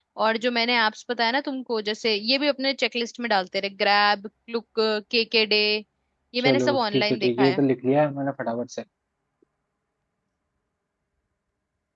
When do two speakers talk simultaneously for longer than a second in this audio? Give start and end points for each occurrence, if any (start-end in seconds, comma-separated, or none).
6.4-7.6